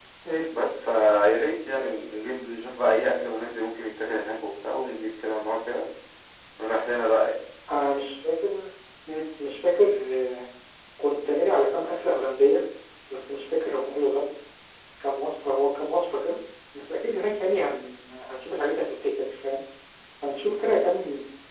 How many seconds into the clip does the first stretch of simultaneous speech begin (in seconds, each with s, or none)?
none